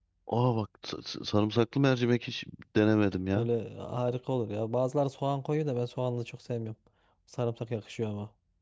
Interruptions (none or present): none